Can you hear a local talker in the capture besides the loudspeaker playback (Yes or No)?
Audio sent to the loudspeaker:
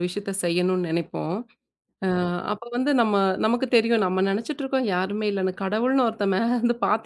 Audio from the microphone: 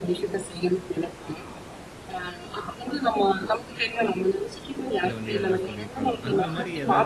Yes